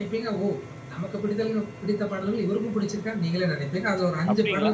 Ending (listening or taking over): taking over